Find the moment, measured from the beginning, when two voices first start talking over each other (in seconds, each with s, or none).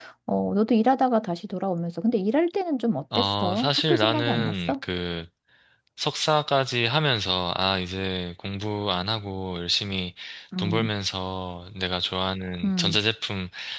3.1 s